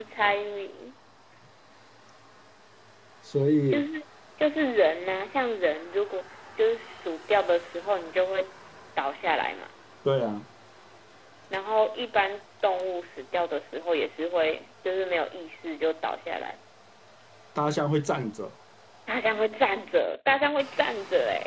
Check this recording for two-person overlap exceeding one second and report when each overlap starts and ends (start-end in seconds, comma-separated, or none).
none